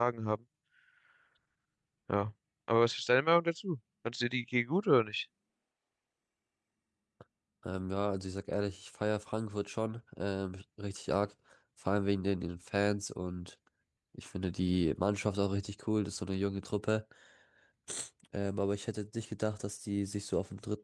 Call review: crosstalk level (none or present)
none